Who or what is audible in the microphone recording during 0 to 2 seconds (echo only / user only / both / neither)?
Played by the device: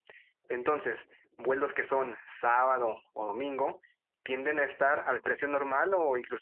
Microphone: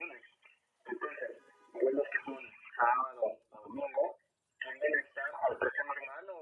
echo only